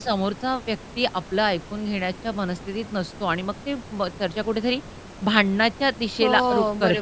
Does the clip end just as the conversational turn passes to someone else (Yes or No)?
No